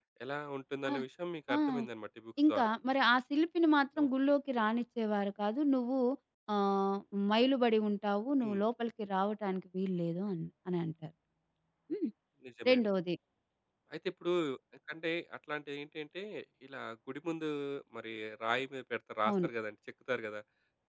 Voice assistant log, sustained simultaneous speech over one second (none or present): none